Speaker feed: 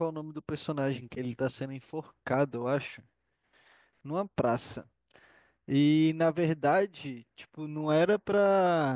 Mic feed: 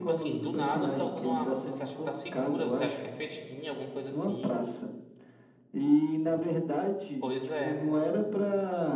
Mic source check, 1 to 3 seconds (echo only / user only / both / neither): both